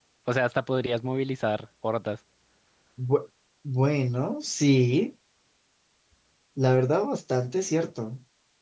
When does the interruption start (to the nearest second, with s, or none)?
none